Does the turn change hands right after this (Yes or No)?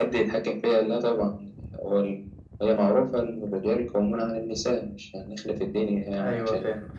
Yes